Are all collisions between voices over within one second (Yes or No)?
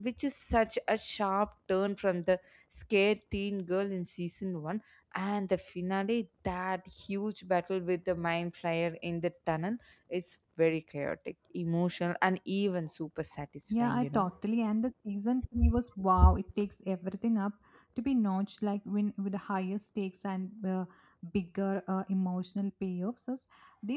Yes